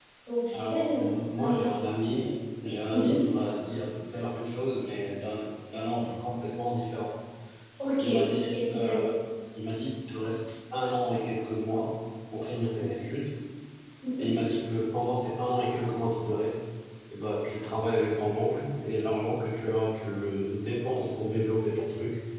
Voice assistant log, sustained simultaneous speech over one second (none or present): present